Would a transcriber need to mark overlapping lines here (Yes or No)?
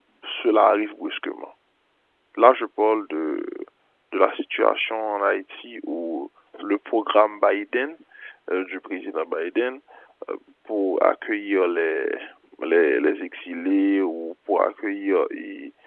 No